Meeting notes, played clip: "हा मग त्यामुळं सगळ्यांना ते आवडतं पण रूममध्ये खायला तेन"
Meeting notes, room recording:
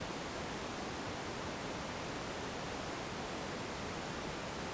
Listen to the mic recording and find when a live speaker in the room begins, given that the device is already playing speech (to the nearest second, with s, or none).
none